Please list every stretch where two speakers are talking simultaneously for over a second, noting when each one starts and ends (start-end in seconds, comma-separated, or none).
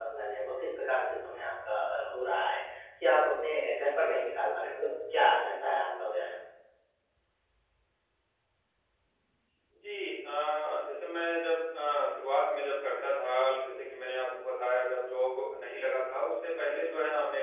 none